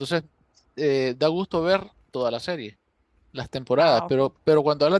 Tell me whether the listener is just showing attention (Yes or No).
Yes